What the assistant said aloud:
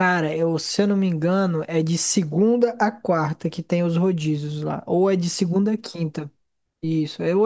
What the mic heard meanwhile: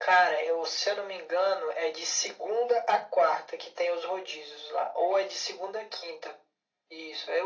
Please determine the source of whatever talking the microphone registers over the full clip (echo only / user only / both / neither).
echo only